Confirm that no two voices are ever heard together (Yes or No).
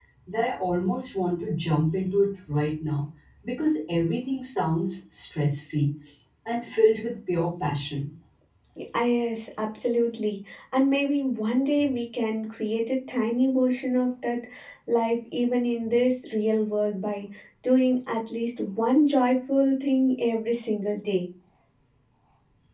Yes